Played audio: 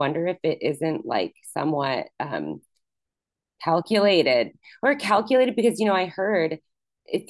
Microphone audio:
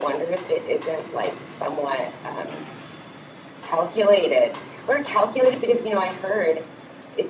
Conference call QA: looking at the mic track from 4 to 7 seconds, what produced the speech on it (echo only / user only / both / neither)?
echo only